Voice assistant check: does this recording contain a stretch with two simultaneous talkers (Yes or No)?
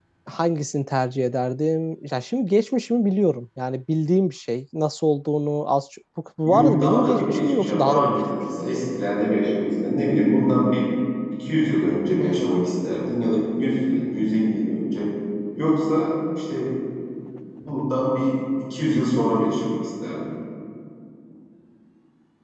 Yes